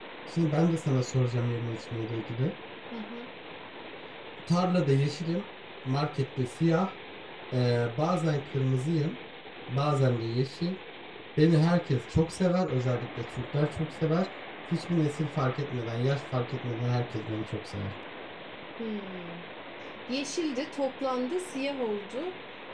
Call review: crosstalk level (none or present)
none